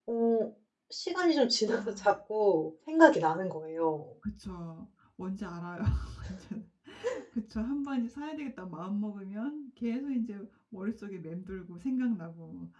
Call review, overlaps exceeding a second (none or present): none